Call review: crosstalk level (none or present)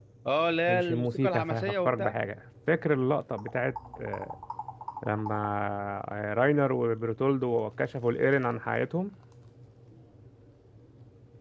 present